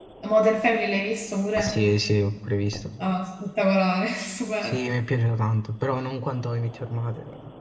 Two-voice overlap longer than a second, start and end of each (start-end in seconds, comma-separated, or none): none